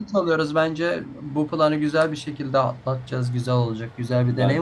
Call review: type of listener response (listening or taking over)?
listening